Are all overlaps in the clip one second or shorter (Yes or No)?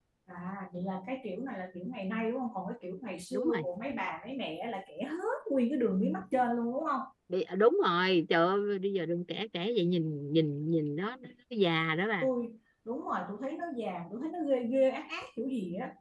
Yes